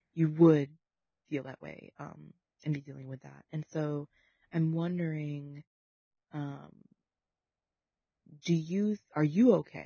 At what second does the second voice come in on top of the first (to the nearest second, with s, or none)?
none